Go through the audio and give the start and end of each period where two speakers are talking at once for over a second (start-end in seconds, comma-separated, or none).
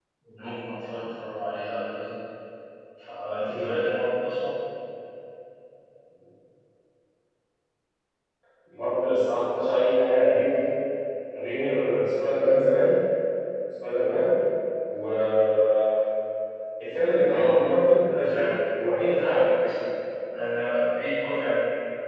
none